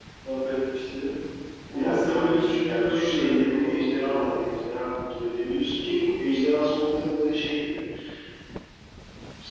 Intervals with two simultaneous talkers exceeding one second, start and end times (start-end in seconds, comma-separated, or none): 1.7-4.4